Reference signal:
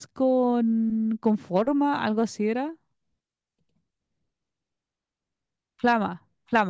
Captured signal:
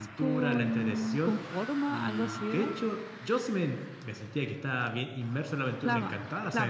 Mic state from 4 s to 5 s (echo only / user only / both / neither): user only